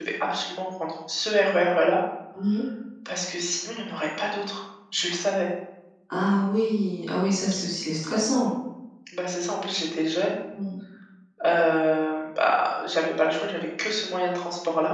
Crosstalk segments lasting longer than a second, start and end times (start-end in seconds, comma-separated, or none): none